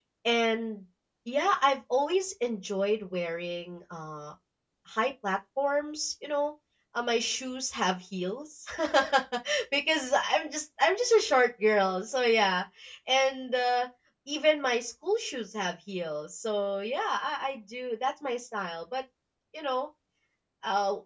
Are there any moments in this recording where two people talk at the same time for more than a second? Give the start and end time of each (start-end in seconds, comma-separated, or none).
none